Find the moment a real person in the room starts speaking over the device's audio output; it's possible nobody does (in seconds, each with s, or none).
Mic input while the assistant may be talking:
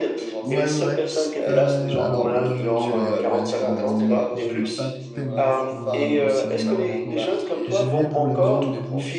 0.4 s